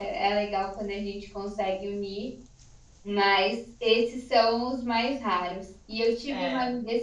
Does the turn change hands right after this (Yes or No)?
No